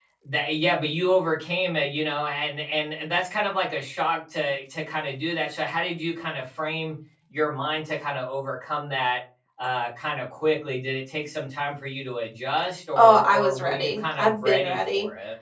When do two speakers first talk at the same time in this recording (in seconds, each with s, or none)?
12.9 s